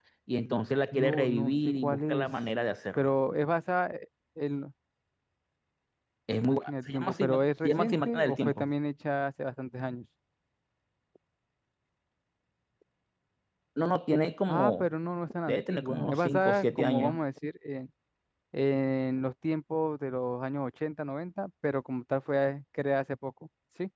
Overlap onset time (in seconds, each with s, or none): 0.9 s